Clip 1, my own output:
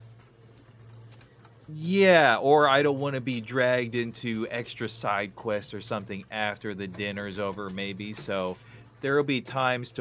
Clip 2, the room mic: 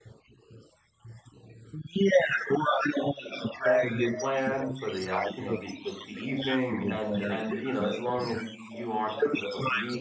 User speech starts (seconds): 3.2 s

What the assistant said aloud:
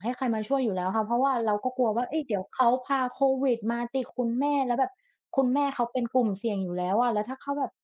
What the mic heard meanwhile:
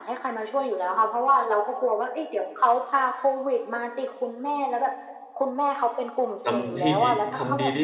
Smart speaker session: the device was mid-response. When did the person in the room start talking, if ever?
6.4 s

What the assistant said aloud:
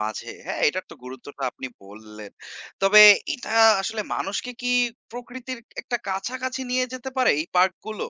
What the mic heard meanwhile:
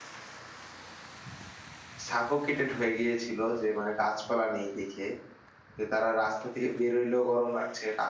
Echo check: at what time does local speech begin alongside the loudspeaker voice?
2.0 s

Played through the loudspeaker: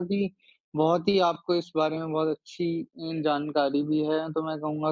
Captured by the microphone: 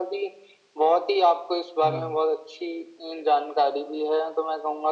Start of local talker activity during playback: 1.8 s

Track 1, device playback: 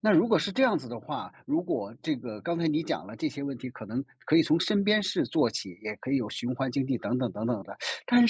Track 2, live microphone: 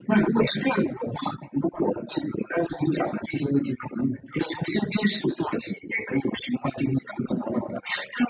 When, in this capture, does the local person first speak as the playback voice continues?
none

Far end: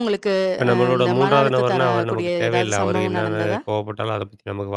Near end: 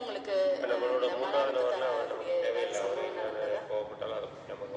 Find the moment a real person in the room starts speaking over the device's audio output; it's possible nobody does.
none

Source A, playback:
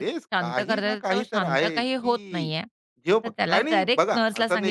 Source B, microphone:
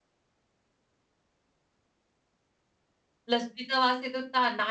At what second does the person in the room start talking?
3.3 s

